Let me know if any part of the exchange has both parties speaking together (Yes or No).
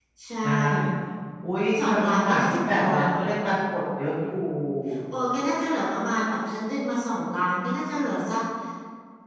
Yes